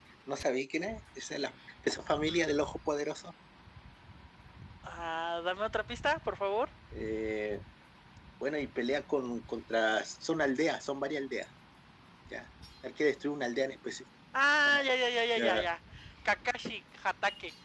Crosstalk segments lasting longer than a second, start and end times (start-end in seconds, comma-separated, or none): none